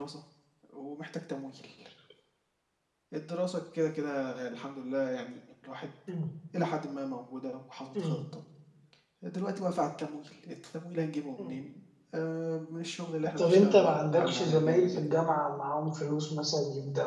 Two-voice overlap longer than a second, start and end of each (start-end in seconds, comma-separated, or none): 13.4-15.1